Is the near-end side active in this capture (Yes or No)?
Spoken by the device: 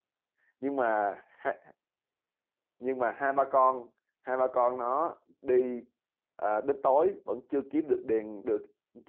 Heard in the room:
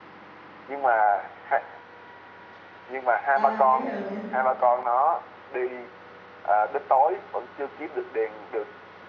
Yes